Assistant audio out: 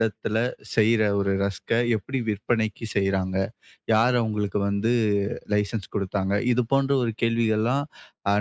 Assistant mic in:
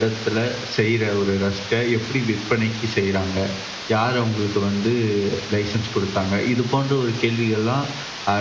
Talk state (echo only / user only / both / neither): echo only